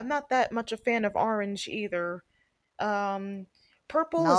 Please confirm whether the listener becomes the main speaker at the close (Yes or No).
Yes